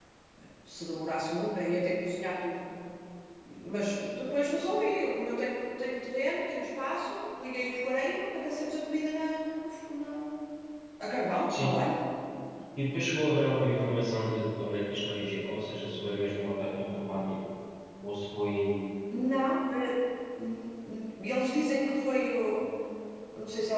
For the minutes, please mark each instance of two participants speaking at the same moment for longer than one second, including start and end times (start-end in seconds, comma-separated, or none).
none